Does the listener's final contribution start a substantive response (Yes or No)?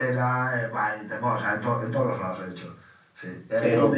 No